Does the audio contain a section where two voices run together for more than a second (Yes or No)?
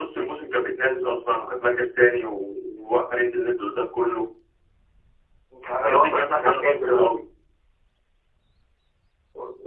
Yes